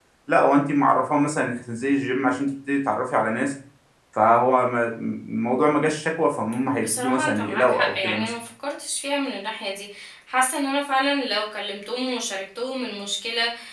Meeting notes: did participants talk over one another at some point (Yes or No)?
Yes